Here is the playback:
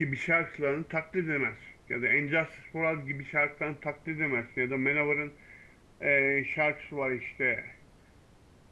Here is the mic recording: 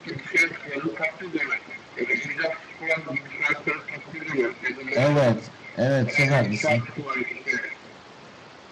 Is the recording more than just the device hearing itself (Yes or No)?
Yes